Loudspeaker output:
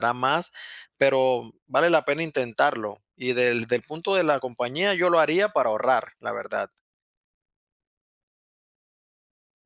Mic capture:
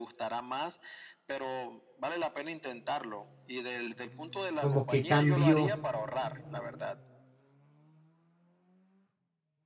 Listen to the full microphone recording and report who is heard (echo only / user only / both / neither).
both